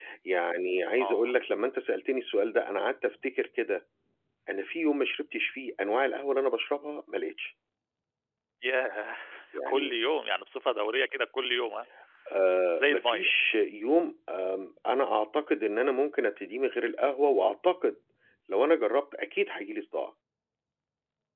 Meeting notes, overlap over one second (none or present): none